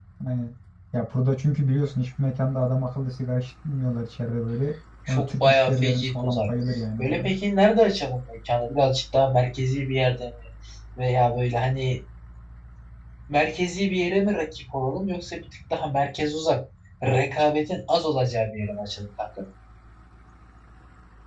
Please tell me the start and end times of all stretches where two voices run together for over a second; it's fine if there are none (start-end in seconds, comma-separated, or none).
5.1-6.5